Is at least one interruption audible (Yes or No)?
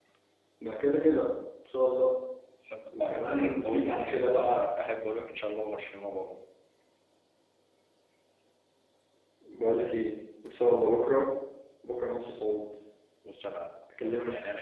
Yes